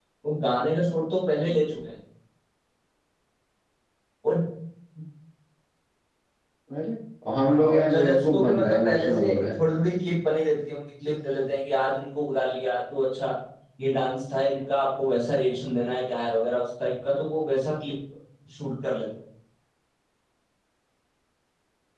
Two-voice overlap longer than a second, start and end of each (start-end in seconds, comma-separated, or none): 7.3-9.4